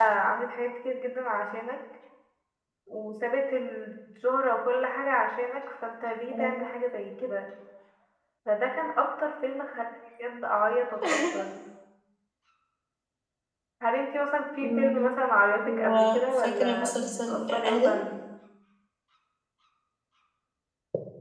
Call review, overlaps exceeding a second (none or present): present